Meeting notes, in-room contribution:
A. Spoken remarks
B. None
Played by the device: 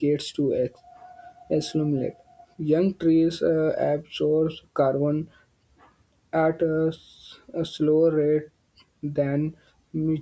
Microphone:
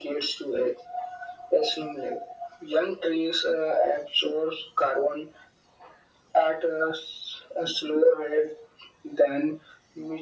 B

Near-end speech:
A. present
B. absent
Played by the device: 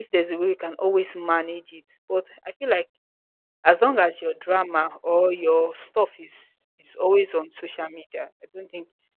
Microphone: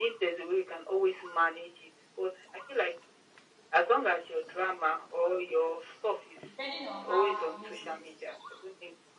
A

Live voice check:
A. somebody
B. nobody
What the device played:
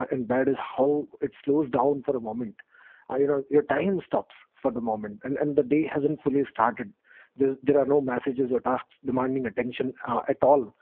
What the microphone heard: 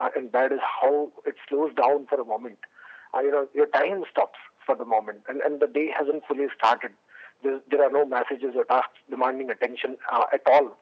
B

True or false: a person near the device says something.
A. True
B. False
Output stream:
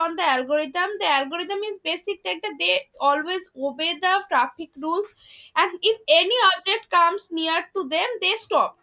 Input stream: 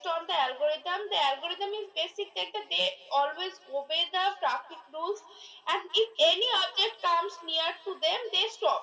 B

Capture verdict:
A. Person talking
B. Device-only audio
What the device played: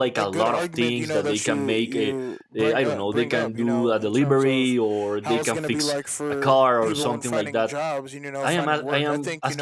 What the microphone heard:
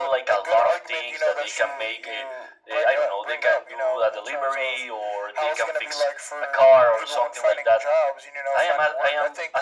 B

